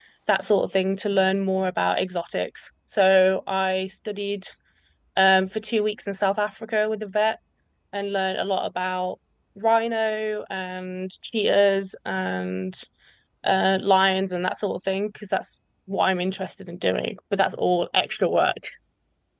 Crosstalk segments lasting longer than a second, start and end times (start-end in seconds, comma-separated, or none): none